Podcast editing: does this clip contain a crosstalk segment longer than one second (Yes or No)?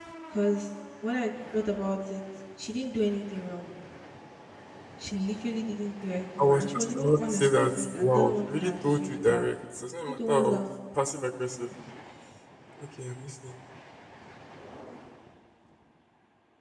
Yes